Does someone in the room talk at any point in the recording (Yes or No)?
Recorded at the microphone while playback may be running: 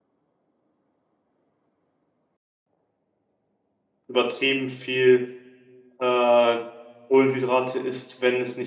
Yes